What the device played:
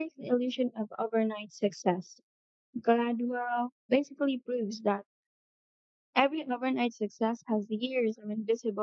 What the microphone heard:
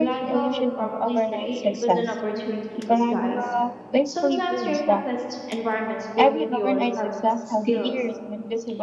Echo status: present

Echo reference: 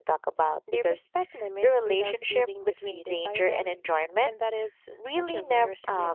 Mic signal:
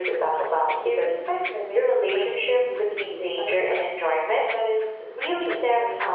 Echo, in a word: present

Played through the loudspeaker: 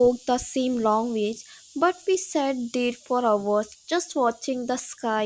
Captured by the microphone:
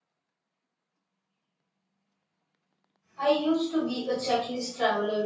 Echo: none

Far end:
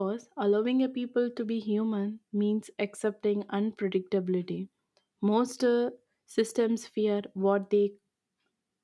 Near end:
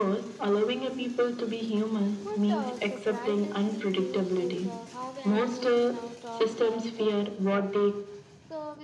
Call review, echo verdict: present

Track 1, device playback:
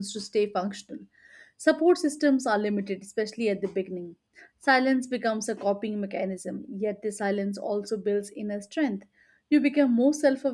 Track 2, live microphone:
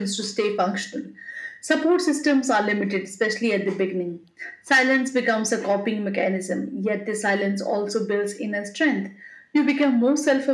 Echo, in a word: present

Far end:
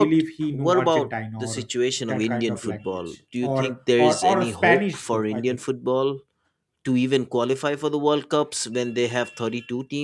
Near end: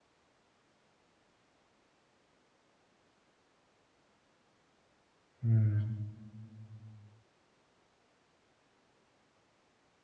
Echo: none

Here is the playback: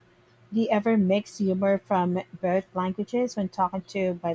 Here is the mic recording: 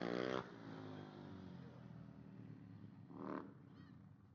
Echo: none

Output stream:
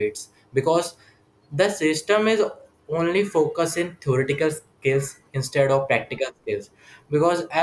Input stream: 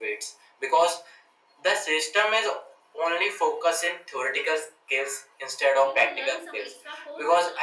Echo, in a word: present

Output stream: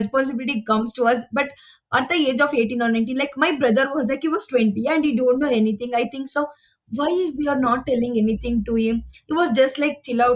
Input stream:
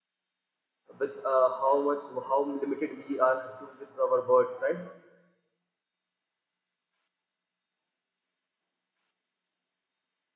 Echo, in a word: none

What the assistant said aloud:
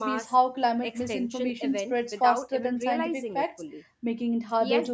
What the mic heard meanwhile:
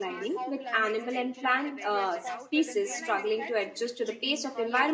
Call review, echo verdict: present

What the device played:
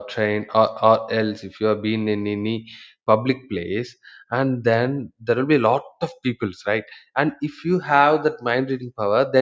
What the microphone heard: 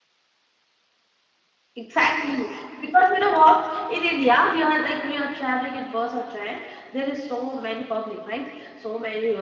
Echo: none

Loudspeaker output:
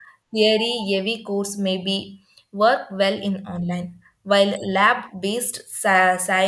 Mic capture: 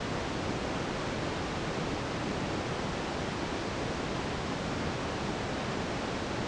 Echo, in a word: none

